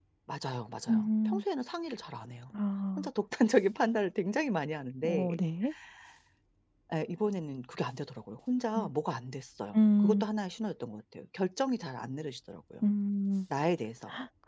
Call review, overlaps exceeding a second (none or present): none